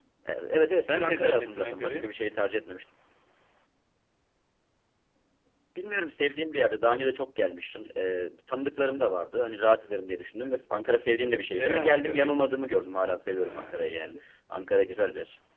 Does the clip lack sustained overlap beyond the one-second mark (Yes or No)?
No